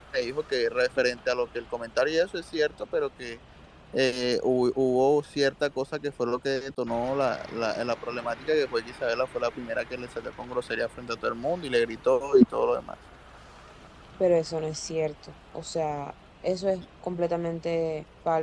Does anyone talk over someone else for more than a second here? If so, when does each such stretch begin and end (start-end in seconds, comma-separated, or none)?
none